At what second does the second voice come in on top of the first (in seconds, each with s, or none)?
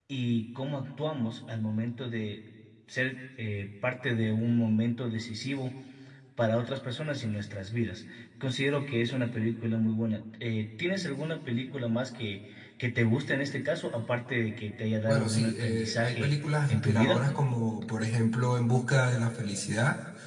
15.1 s